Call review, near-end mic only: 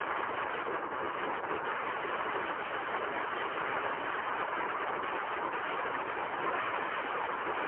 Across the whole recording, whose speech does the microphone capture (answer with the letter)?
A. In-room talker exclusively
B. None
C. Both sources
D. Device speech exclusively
B